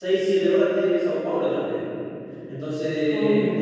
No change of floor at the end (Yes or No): Yes